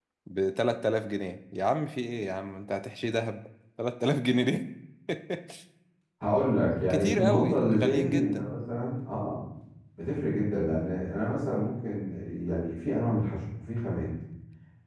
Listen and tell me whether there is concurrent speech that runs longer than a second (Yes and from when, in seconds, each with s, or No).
Yes, from 6.9 s